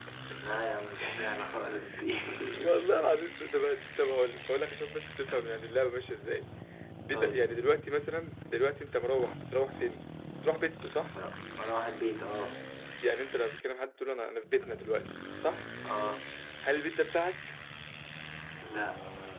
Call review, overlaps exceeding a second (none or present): none